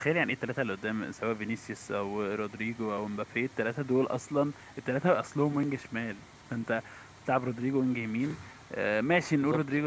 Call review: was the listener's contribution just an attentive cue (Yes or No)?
Yes